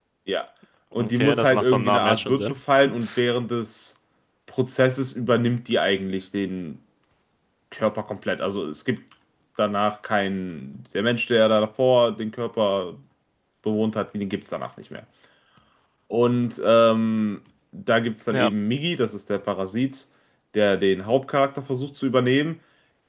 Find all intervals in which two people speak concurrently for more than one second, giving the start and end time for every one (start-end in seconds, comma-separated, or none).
1.0-2.6